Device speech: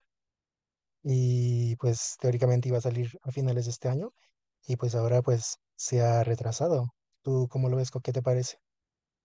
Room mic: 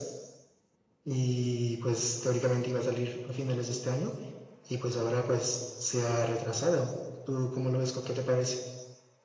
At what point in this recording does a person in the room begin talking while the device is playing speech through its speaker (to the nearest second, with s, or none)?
none